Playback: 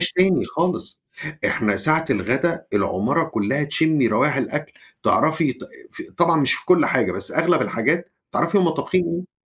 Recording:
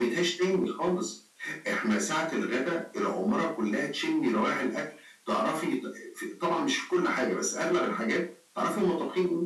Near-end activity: none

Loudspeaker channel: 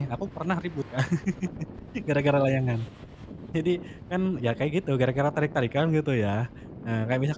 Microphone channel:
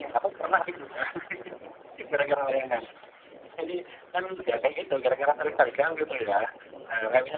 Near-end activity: present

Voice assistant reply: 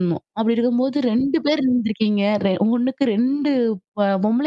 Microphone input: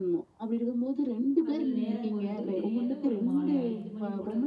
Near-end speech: present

